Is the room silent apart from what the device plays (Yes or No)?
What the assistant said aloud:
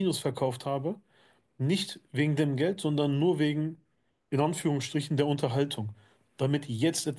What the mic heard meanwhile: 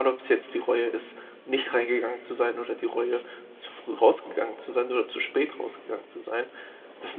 No